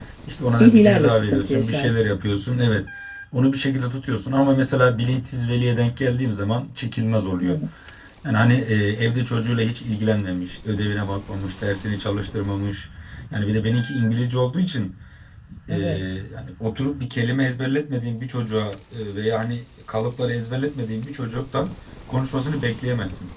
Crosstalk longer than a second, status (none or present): present